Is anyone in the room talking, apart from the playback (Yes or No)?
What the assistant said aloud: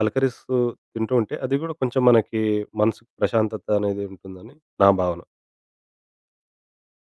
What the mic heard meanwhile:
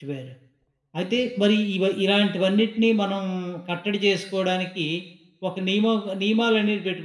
Yes